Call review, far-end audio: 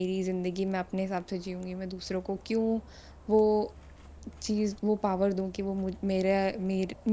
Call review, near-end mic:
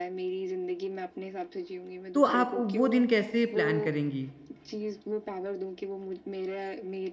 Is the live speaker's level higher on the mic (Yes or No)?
Yes